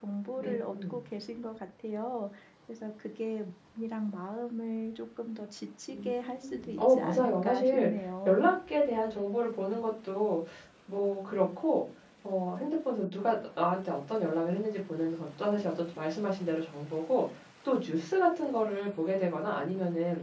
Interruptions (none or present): present